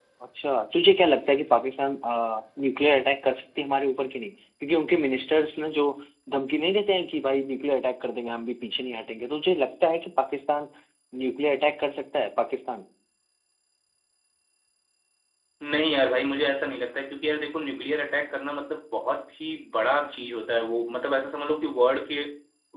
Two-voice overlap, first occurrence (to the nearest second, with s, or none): none